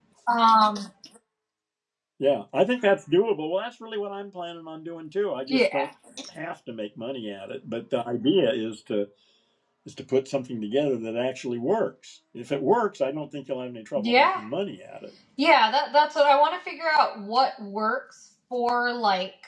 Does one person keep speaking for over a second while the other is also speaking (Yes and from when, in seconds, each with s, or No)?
No